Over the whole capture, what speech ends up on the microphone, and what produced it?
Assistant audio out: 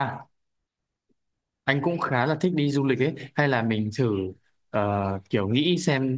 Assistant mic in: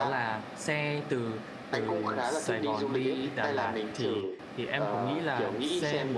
both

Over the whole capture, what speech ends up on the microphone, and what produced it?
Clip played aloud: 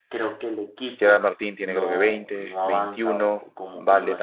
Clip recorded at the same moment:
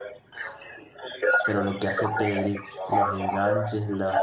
both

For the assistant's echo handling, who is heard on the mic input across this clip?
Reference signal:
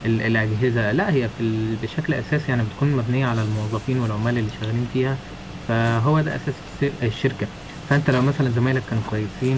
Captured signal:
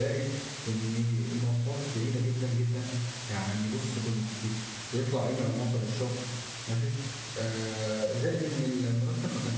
user only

